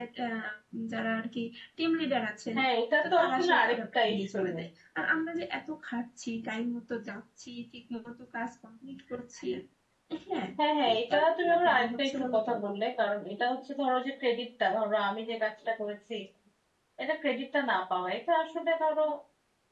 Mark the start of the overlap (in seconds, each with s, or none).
3.0 s